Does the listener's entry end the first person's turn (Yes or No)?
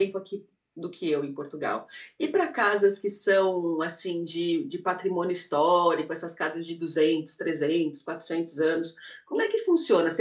No